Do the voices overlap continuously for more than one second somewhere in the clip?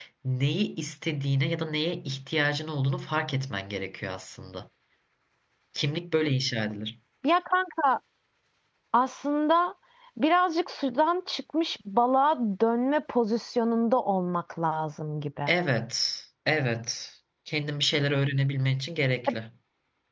No

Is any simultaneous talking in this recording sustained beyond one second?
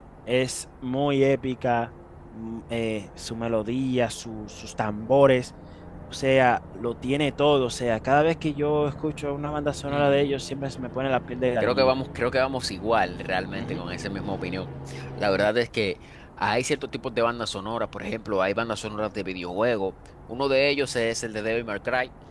No

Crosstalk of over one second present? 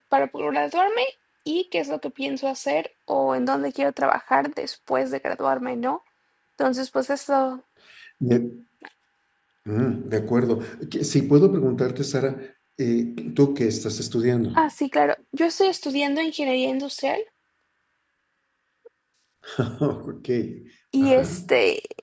No

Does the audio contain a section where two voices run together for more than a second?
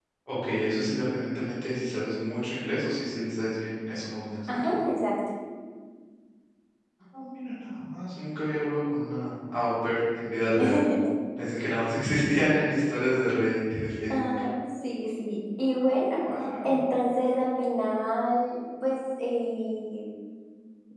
No

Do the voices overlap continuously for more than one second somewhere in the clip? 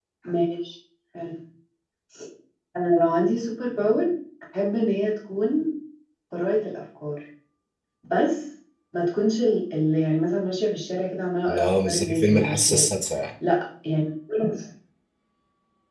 Yes, from 11.5 s

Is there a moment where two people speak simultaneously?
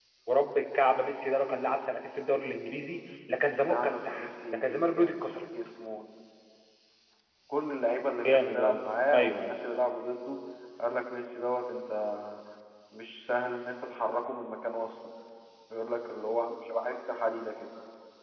Yes, from 3.6 s

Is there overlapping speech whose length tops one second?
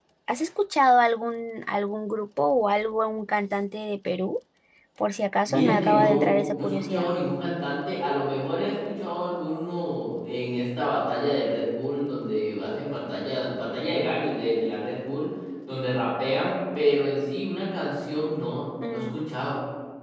Yes, from 5.5 s

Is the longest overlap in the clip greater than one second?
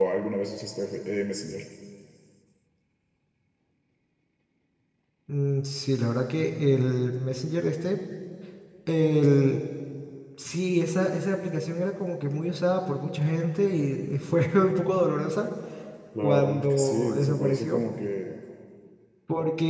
Yes, from 16.2 s

